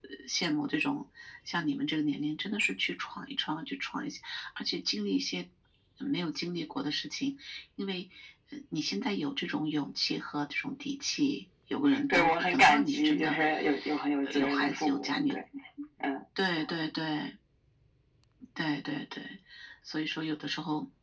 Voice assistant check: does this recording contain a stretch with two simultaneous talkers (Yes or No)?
Yes